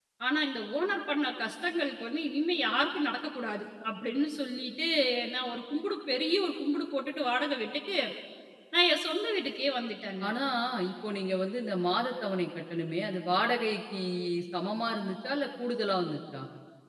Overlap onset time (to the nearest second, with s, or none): none